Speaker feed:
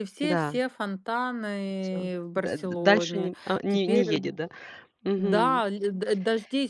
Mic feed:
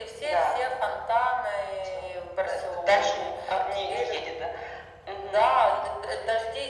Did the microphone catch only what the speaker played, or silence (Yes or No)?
Yes